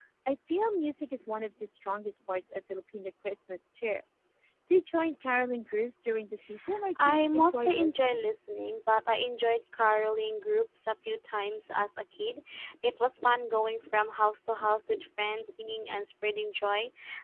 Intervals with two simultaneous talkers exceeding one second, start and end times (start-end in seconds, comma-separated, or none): 7.0-8.3